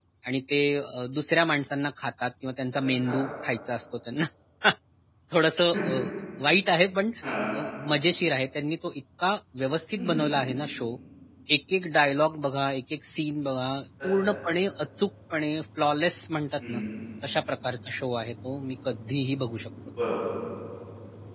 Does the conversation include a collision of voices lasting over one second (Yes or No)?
No